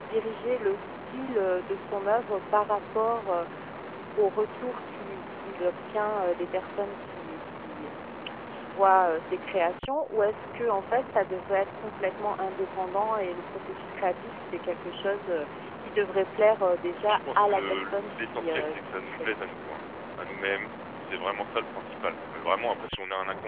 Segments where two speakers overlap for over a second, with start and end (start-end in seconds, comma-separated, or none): 17.1-19.3